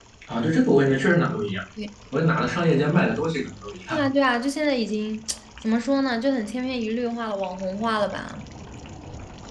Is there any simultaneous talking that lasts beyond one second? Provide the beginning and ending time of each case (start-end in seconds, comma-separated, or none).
none